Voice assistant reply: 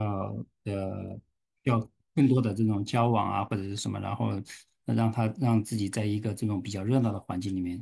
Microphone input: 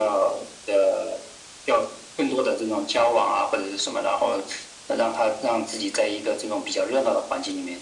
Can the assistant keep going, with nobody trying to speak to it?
Yes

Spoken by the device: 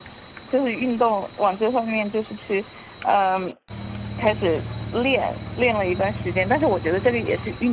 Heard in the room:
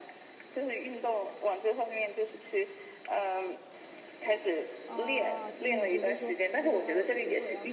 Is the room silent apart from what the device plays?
No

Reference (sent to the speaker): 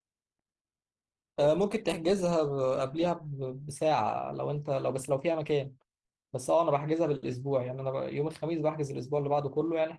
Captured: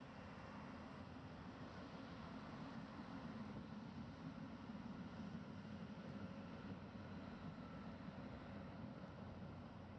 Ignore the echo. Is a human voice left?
No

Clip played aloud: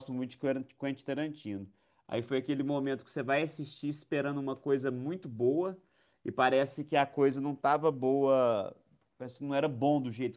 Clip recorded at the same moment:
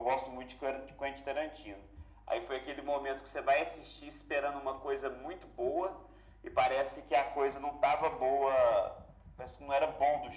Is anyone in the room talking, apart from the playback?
No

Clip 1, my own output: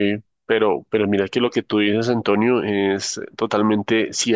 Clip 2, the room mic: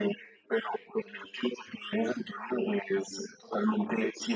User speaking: No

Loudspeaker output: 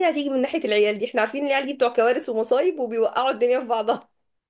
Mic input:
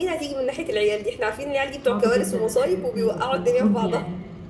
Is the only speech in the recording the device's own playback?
No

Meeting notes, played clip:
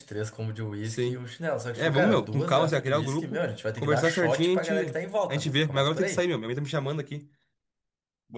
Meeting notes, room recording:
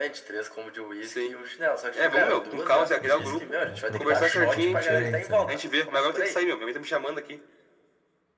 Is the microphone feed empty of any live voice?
No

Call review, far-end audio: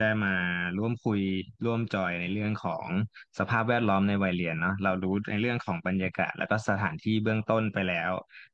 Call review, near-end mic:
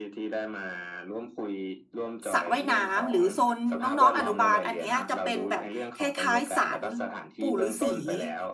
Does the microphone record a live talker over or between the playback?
Yes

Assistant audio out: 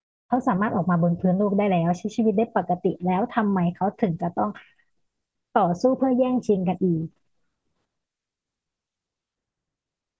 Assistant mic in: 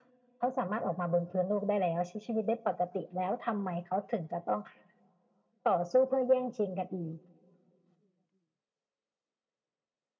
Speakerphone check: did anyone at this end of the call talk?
No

